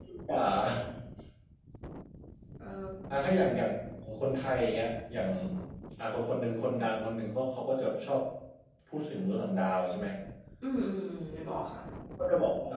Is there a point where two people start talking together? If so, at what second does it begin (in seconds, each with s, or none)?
none